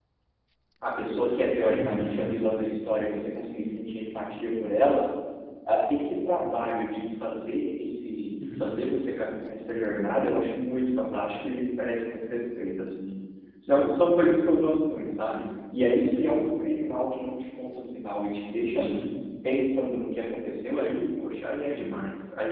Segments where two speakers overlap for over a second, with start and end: none

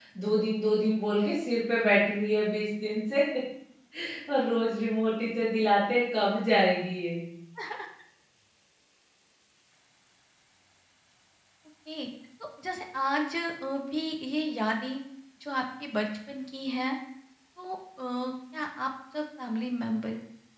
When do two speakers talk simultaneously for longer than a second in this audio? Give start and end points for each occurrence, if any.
none

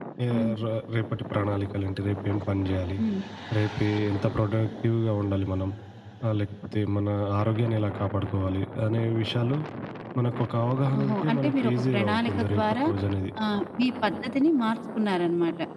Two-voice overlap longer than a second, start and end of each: 11.0-12.8

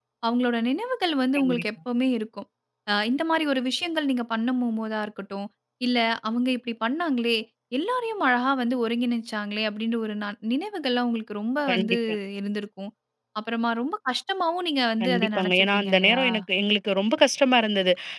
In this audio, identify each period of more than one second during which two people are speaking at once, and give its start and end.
15.0-16.2

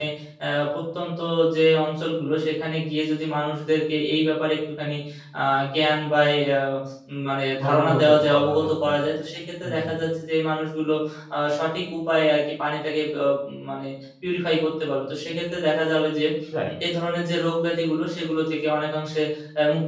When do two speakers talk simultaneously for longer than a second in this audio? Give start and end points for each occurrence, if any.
7.7-9.0

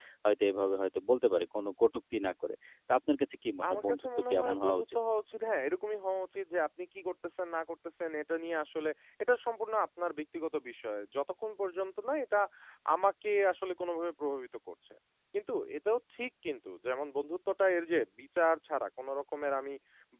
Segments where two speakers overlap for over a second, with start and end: 3.7-5.0

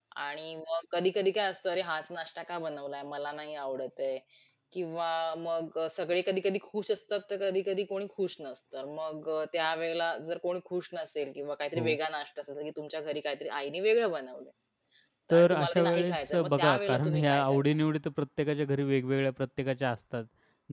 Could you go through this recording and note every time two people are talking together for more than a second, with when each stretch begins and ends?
15.3-17.6

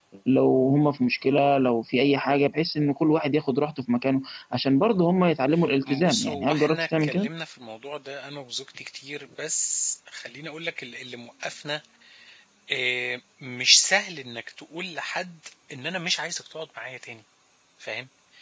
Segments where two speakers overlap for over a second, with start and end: 6.0-7.3

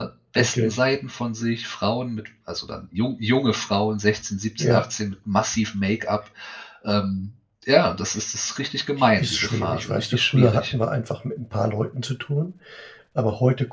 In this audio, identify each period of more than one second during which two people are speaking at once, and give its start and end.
9.0-10.7

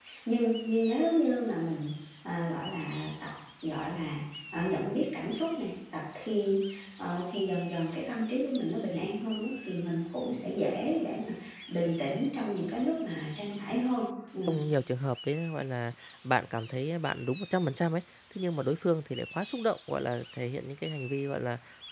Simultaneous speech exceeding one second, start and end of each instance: none

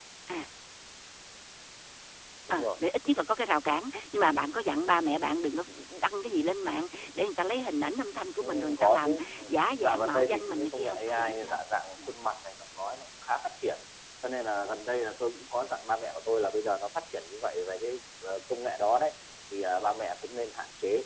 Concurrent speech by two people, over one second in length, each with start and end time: 8.4-11.6

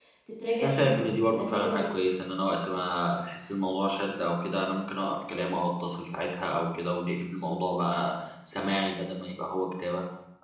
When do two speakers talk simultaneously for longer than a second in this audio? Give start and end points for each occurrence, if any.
0.6-1.9

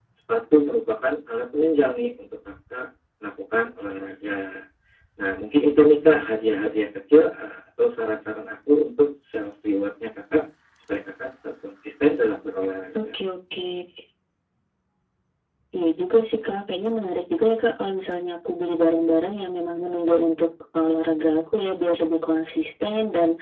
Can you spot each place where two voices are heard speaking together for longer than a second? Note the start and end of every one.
none

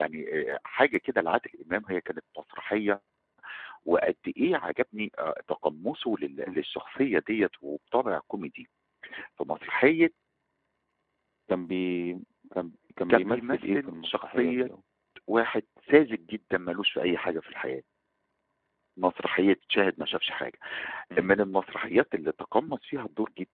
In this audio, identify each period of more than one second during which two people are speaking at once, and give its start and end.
13.1-14.7

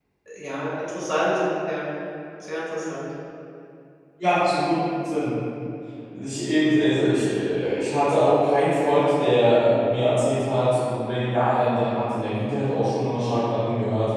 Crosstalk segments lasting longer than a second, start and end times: none

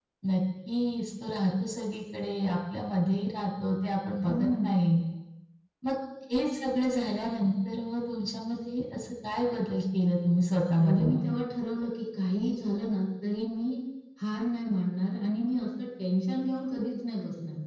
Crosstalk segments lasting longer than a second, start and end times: none

